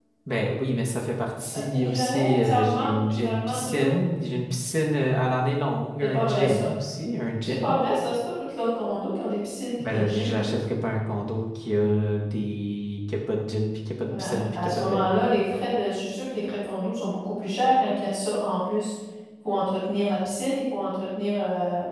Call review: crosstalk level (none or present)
present